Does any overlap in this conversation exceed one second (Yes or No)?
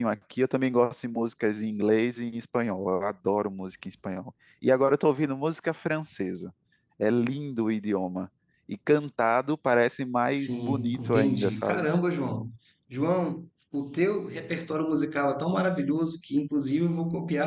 Yes